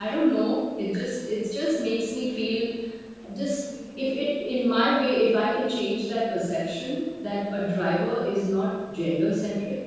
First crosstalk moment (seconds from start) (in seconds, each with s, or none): none